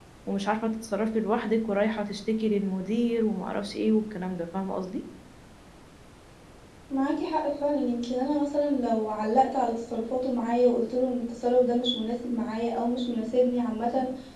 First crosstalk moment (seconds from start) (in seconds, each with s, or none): none